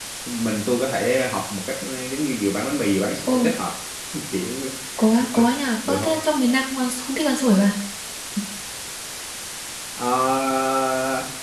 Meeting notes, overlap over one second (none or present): none